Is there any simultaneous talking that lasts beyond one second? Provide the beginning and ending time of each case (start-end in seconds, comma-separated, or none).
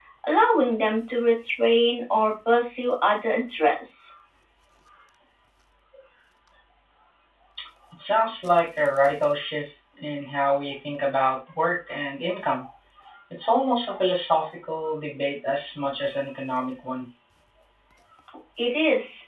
none